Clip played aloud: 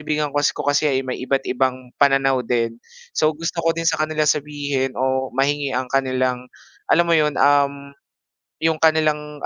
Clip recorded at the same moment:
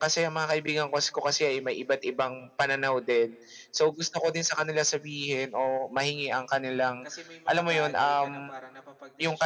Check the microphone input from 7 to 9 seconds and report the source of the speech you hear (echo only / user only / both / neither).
both